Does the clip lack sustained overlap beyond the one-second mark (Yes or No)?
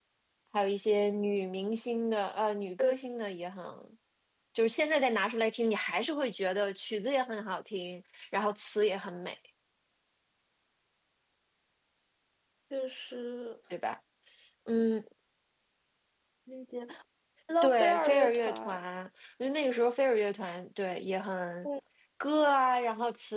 No